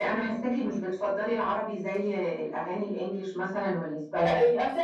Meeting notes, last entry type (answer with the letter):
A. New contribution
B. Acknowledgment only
A